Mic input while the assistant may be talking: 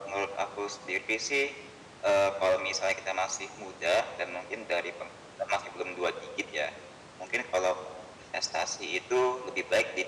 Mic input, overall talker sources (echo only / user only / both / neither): echo only